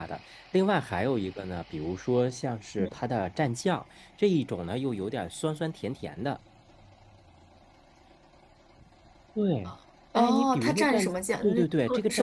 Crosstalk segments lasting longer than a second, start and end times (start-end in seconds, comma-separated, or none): 10.1-11.6